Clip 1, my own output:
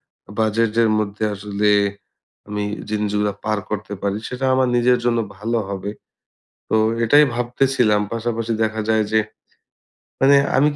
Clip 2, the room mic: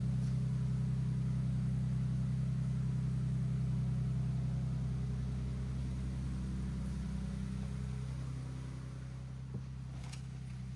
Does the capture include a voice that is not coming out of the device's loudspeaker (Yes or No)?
No